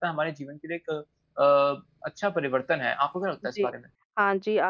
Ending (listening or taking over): taking over